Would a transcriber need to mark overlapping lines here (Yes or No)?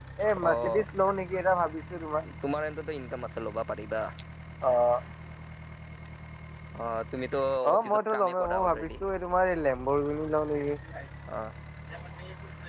Yes